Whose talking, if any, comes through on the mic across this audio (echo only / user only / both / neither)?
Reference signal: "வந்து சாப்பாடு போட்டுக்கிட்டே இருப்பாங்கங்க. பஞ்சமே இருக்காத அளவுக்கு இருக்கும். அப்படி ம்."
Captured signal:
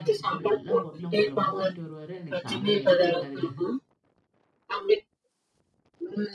both